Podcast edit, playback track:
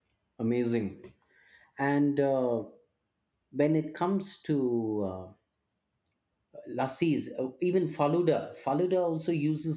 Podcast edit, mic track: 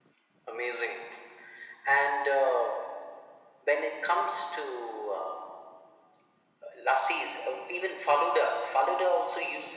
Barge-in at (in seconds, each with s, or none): none